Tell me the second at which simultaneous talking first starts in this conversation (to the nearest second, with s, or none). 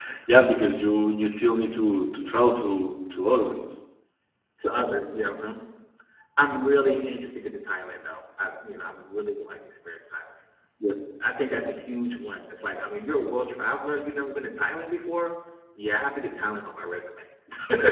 none